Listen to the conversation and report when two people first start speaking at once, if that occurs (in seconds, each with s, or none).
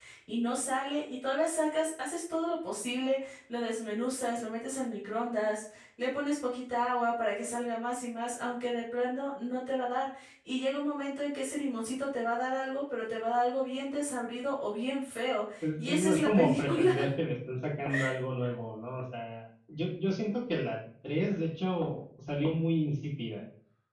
15.6 s